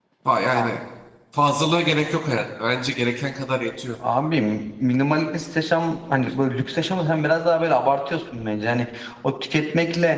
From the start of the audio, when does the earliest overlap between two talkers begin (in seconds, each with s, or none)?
none